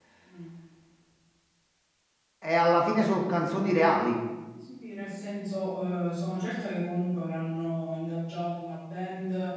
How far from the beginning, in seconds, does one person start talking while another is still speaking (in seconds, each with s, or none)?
none